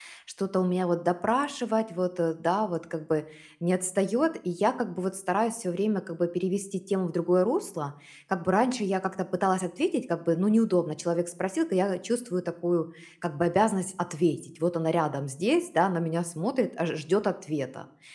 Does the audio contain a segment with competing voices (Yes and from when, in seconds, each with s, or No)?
No